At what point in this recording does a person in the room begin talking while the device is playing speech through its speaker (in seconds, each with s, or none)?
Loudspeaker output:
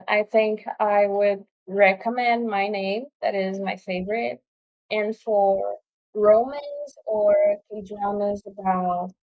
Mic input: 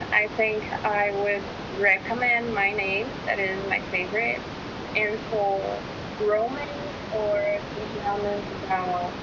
none